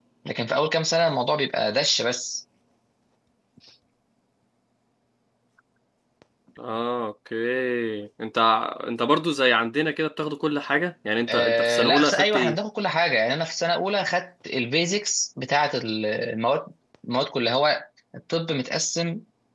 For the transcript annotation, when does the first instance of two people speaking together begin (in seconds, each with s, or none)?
11.3 s